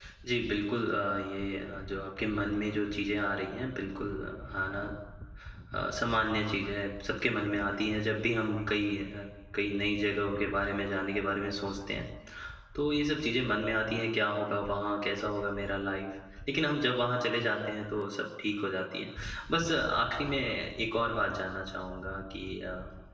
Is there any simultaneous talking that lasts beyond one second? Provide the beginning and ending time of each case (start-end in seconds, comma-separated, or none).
none